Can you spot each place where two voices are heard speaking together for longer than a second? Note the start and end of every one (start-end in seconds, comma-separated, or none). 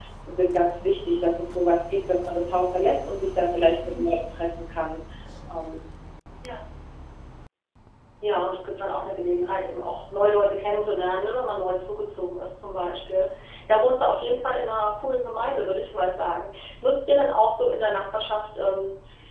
none